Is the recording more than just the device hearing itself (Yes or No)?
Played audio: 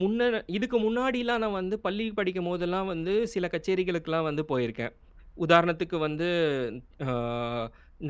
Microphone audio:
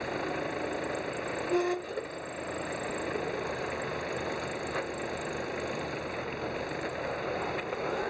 No